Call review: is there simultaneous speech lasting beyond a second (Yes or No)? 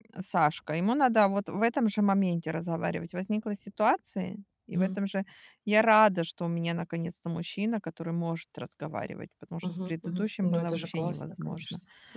Yes